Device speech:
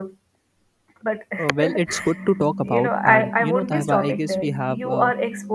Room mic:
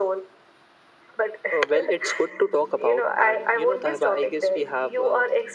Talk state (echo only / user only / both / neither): echo only